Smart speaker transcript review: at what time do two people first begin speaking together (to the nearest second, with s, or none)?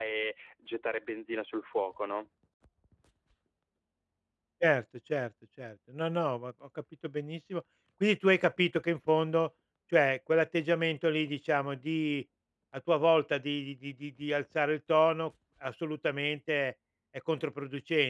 none